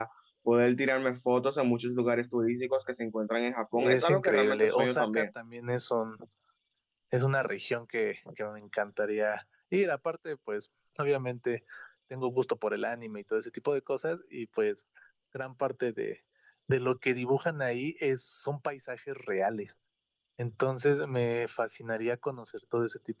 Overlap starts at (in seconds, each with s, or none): 3.7 s